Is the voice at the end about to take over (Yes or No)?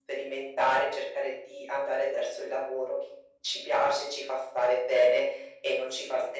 Yes